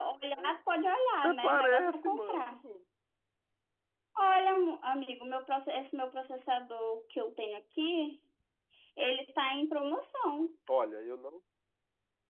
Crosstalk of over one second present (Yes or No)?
Yes